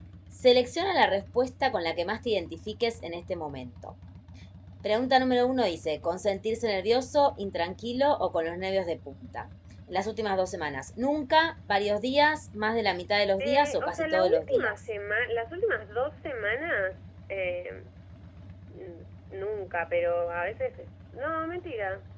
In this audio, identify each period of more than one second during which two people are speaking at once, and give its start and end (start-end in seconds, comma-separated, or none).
13.4-14.8